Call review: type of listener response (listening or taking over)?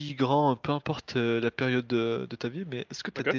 listening